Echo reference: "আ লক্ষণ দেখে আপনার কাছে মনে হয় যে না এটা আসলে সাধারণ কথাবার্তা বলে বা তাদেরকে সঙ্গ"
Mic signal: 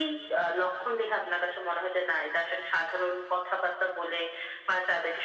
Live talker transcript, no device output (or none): none